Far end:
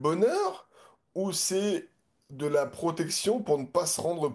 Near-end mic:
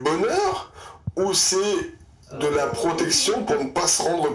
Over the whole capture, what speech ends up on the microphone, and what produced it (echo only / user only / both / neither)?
both